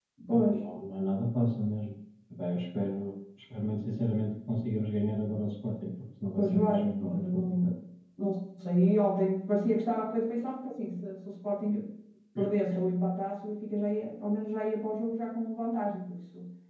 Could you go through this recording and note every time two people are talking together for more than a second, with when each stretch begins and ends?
6.3-7.7

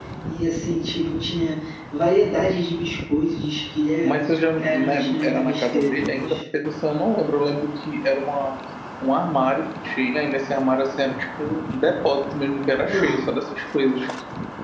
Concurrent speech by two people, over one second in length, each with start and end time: 4.6-6.3

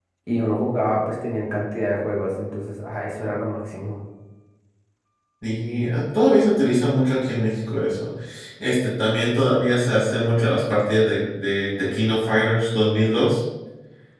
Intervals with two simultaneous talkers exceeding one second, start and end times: none

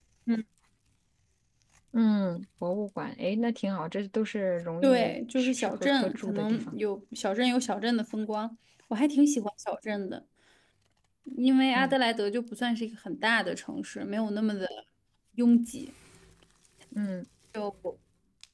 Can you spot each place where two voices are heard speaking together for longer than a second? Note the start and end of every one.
4.8-6.8

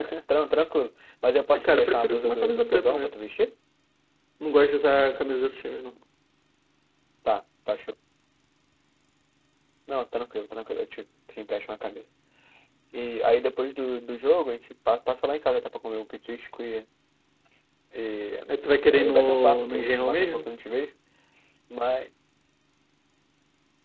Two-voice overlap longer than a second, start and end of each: 1.6-3.2, 18.9-20.6

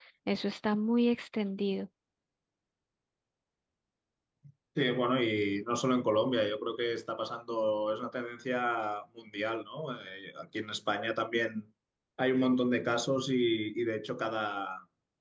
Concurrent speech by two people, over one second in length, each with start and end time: none

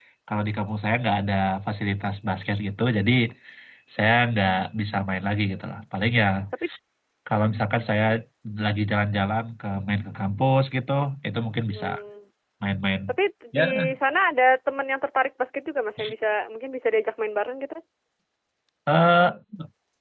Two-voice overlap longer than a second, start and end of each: none

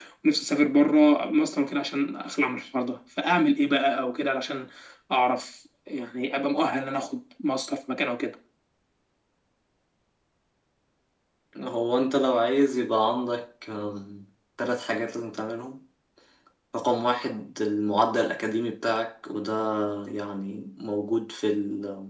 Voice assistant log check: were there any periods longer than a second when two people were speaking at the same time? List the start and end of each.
none

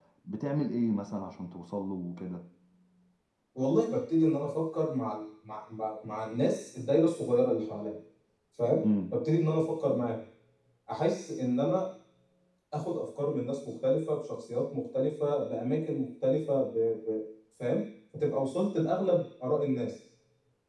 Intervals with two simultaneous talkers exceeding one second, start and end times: none

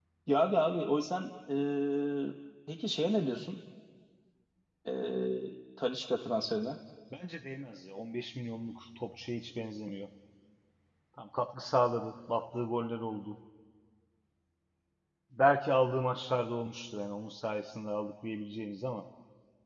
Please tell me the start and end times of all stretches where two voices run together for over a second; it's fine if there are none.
none

